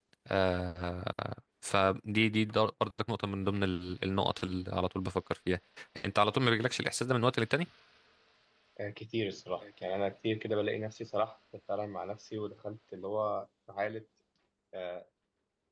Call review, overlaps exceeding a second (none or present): none